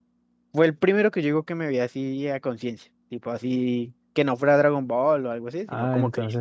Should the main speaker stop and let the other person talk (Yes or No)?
Yes